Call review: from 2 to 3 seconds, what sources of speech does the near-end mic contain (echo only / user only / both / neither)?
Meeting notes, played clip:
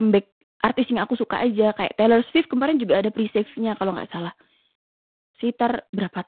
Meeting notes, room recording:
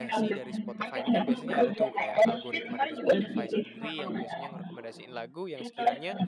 both